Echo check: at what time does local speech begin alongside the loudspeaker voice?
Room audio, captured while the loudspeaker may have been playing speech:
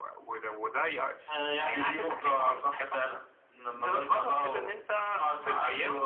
none

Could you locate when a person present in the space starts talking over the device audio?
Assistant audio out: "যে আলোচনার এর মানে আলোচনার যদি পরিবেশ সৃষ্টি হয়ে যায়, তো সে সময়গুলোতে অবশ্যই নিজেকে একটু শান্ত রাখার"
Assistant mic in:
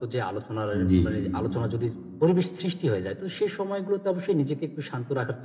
0.7 s

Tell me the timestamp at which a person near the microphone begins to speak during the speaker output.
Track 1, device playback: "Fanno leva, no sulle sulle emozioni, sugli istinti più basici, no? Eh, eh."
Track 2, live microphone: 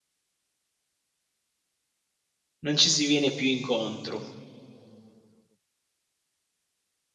2.6 s

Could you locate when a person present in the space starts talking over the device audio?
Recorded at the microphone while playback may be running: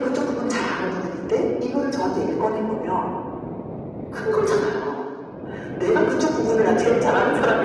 none

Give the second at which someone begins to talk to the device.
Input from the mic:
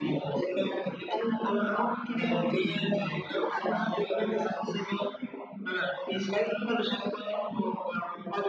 none

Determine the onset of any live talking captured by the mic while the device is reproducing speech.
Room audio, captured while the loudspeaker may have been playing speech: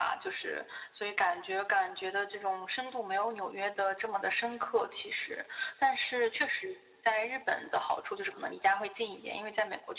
none

